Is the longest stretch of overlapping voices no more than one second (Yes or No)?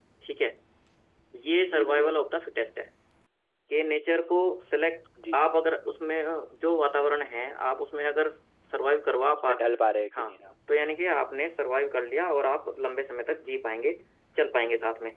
Yes